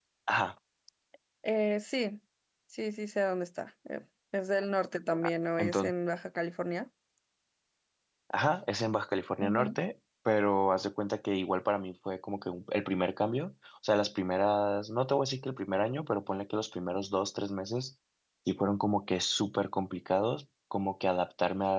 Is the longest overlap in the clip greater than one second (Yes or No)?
No